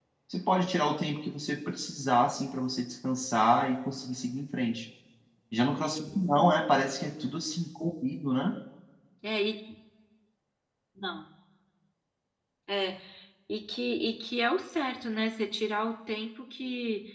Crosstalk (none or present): none